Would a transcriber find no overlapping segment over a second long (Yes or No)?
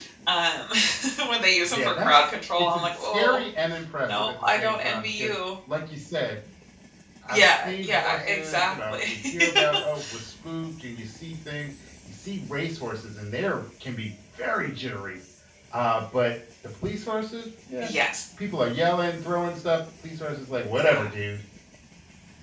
No